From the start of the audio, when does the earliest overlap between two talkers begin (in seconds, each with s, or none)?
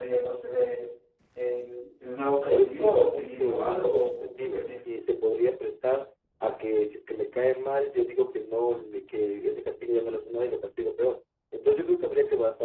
2.5 s